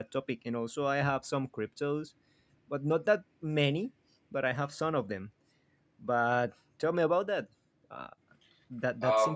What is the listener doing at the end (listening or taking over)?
taking over